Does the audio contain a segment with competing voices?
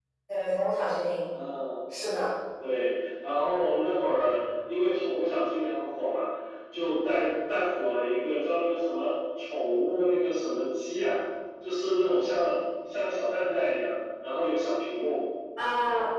No

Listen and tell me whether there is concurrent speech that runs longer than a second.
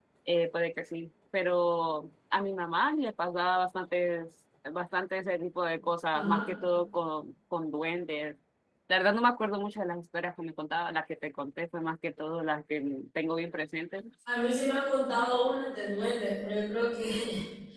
No

